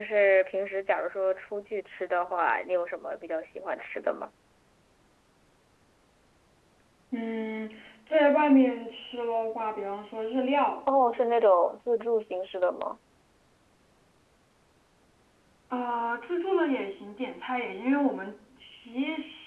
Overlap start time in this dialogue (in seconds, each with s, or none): none